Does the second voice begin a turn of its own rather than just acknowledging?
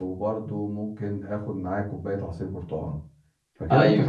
No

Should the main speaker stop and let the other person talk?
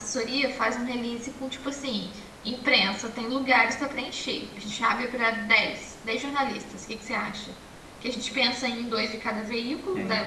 No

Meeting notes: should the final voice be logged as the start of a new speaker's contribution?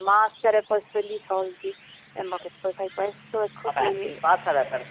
Yes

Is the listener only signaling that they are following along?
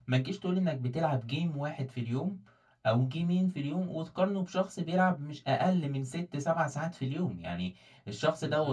Yes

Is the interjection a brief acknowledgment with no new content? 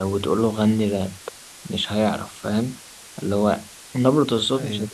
Yes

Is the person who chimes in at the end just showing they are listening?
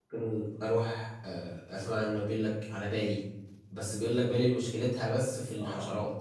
No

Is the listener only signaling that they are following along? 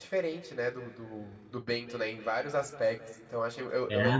Yes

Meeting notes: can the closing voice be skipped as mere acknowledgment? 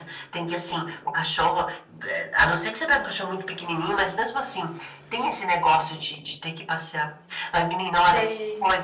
Yes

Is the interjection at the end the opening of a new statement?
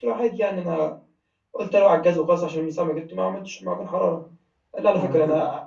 No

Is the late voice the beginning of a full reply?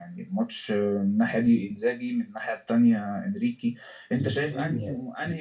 No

